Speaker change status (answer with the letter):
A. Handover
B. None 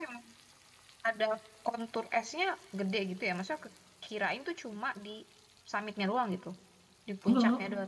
B